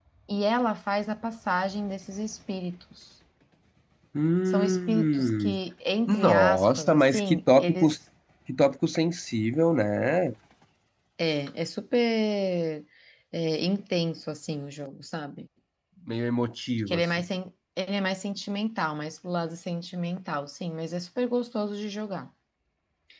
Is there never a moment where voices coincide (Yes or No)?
No